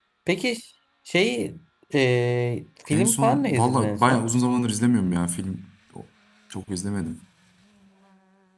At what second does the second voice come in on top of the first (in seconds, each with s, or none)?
2.9 s